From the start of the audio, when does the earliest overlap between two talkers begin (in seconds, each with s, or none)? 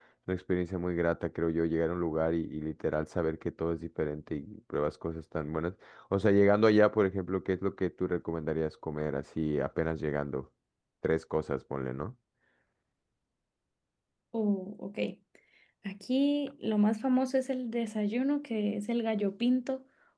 none